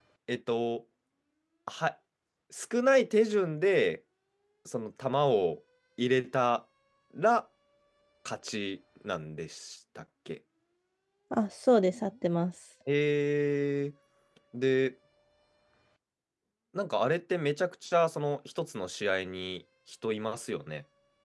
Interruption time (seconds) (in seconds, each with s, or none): none